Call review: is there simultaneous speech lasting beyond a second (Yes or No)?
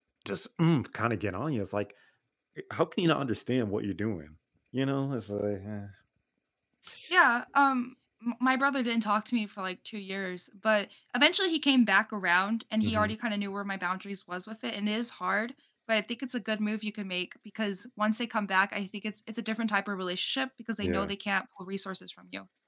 No